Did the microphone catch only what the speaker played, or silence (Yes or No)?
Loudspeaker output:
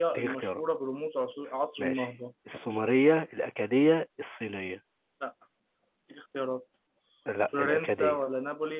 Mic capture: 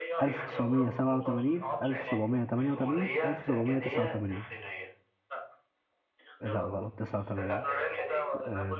No